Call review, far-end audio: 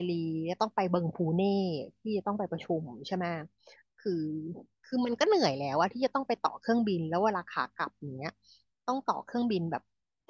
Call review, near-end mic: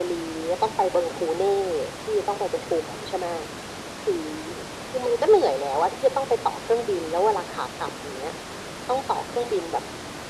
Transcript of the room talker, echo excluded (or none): none